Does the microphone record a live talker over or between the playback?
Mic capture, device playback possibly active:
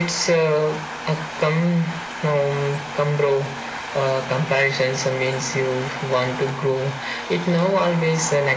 No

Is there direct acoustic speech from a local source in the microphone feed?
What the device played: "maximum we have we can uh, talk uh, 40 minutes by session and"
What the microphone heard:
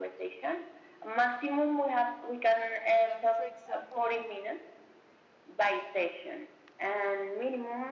Yes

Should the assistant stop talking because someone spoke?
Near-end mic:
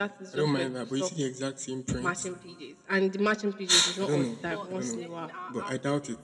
Yes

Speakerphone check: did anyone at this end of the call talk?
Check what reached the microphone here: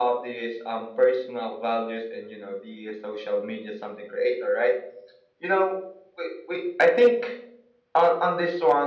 No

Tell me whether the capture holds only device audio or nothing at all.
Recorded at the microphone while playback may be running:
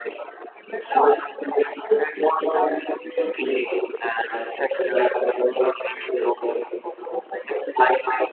Yes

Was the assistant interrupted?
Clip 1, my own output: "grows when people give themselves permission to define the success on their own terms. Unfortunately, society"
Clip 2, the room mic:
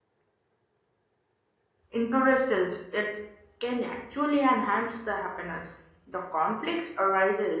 Yes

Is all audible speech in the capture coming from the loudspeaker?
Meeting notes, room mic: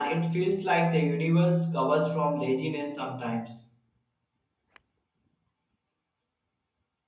No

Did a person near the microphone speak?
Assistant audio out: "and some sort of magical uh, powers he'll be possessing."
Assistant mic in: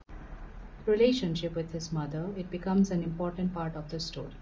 Yes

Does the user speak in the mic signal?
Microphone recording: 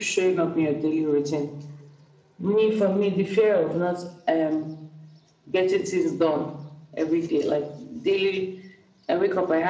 No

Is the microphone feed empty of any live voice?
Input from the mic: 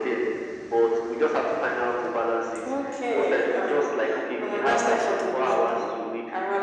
Yes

